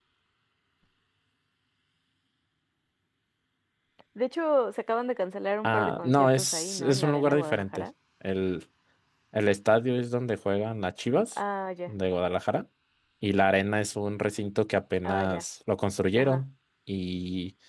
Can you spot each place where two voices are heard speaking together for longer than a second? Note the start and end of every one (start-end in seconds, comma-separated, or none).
5.6-7.9